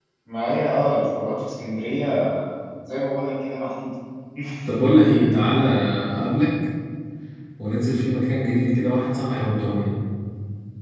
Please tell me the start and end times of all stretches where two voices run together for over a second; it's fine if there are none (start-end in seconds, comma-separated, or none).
none